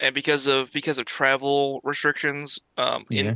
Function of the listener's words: listening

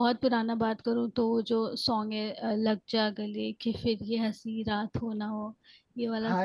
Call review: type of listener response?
taking over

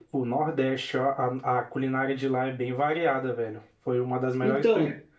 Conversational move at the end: listening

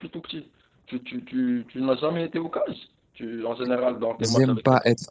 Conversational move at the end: taking over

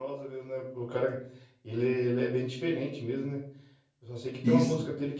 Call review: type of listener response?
listening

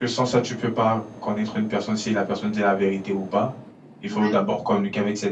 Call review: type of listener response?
listening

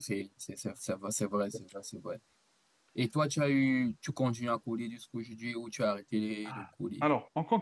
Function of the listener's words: taking over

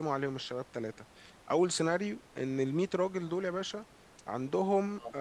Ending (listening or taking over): listening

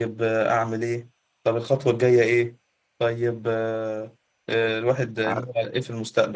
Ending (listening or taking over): listening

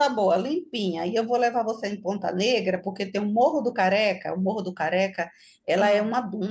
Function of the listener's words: listening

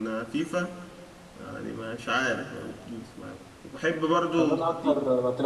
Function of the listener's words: taking over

